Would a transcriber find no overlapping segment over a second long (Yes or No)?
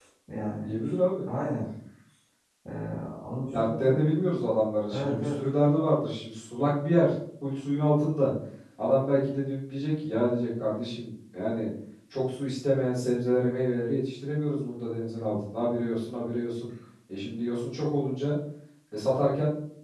Yes